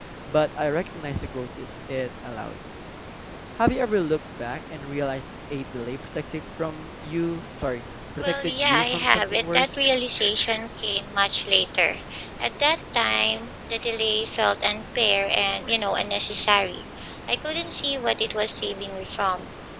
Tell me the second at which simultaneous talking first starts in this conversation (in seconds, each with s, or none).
8.2 s